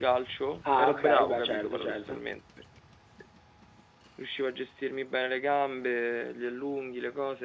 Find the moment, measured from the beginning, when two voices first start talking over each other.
0.6 s

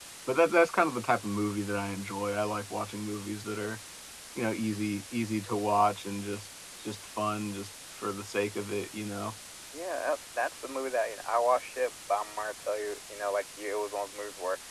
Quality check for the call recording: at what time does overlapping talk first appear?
none

